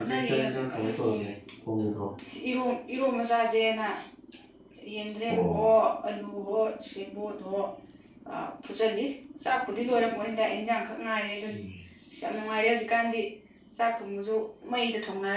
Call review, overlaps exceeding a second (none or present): present